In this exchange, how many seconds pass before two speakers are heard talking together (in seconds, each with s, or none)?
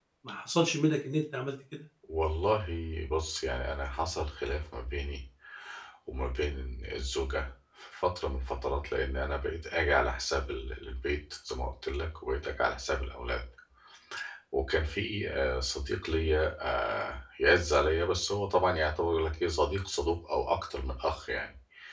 none